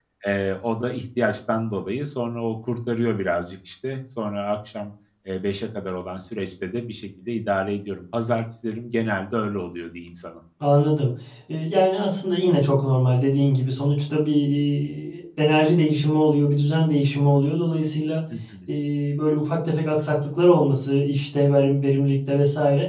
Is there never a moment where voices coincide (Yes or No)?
Yes